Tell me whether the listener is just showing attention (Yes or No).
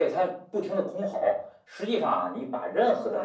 Yes